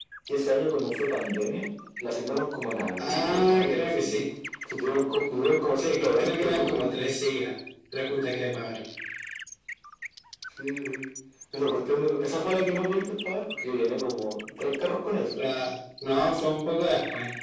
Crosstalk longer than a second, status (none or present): present